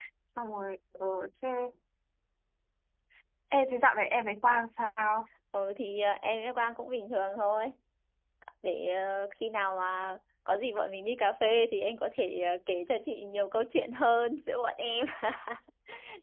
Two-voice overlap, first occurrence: none

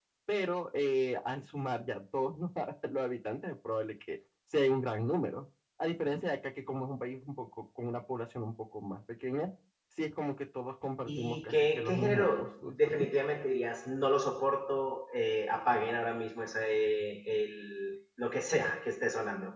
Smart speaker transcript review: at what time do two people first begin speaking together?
11.1 s

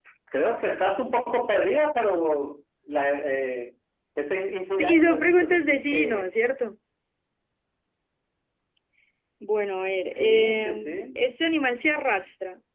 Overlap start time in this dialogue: 4.8 s

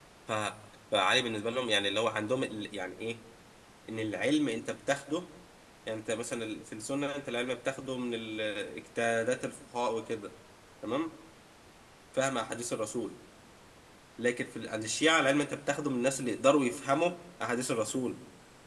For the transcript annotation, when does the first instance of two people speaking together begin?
none

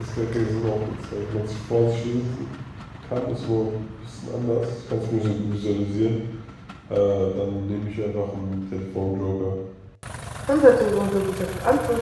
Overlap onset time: none

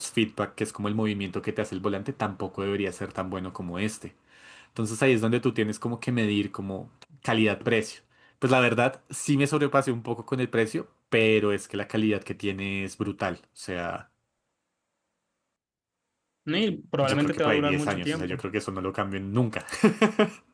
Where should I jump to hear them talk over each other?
17.0 s

